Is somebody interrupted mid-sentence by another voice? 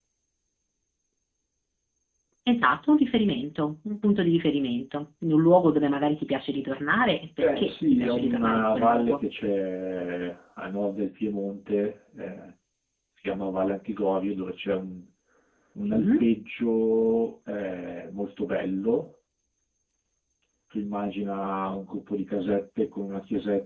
Yes, from 7.4 s

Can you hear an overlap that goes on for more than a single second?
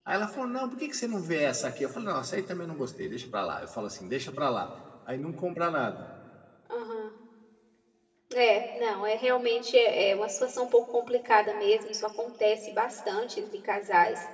No

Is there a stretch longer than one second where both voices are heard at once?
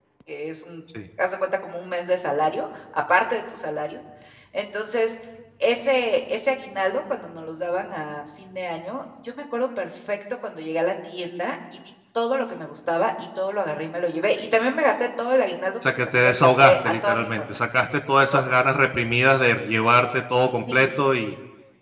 Yes, from 15.9 s

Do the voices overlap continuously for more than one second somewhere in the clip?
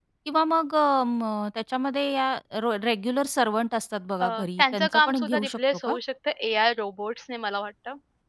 Yes, from 4.2 s

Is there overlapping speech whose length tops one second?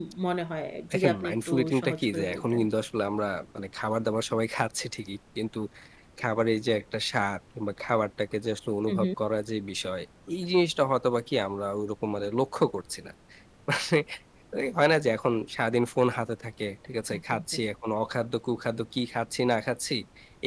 Yes, from 0.9 s

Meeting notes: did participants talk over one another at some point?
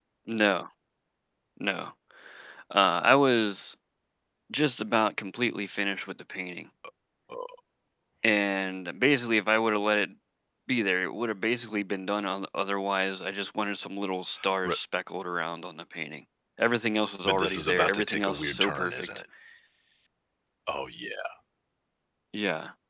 Yes, from 17.2 s

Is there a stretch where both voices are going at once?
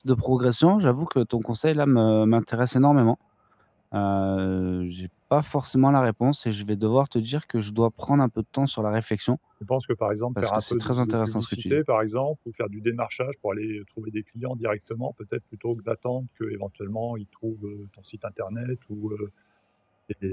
Yes, from 10.4 s

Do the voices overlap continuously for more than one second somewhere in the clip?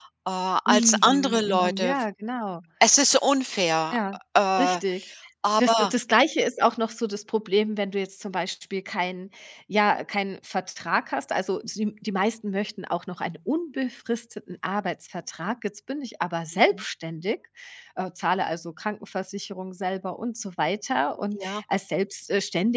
Yes, from 0.7 s

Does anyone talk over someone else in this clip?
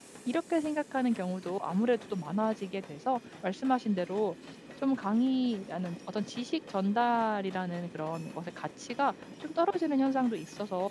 No

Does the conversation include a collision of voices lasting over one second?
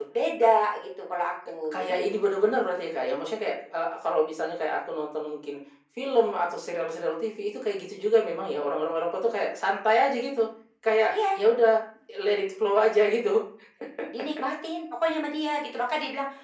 No

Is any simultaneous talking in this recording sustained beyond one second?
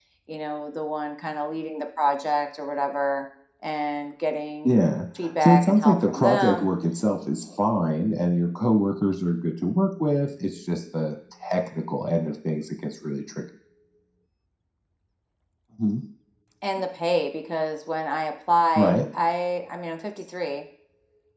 Yes, from 5.4 s

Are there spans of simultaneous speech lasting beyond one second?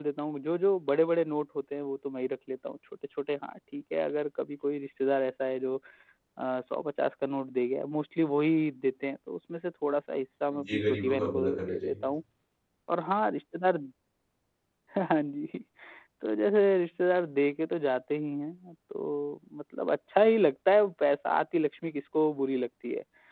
Yes, from 10.5 s

